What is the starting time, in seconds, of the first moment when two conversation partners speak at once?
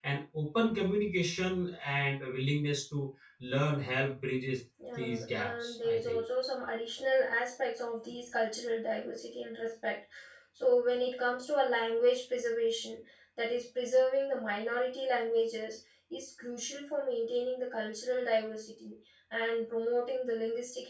4.8 s

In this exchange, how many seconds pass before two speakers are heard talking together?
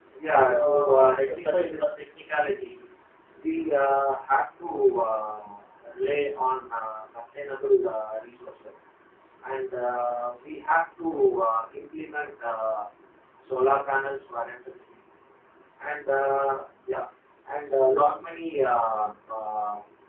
0.5 s

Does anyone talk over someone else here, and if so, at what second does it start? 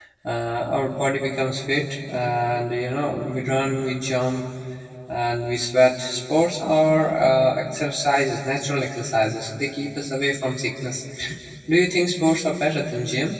none

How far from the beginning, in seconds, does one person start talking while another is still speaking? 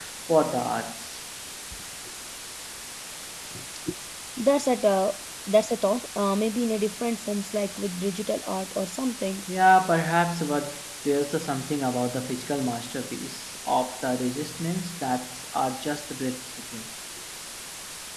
none

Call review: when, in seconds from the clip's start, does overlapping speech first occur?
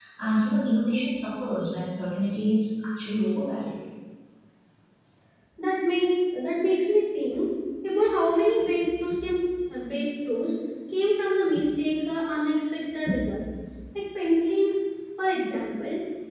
none

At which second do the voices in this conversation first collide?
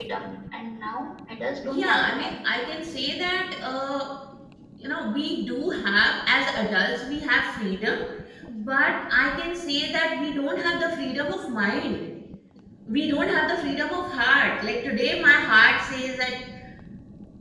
1.6 s

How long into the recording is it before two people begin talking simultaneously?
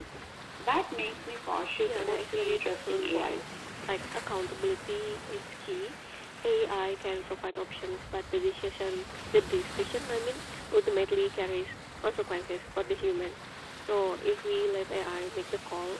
1.8 s

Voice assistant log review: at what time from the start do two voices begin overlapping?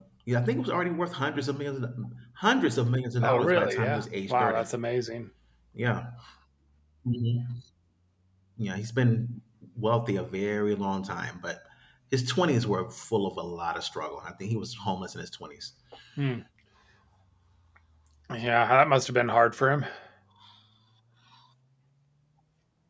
3.2 s

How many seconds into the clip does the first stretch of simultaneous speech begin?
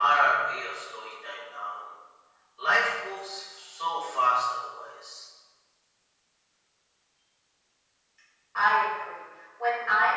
none

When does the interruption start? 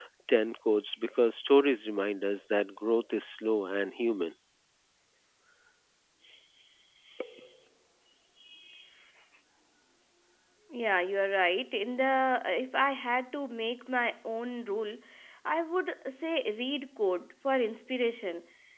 none

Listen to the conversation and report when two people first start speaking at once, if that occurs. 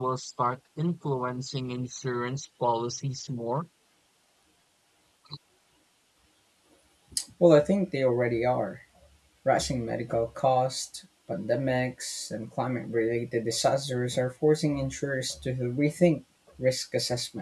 none

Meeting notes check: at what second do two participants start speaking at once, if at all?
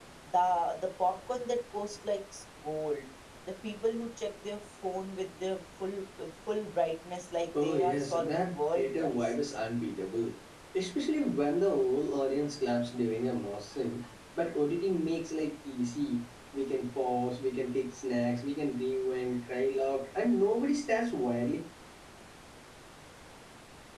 7.5 s

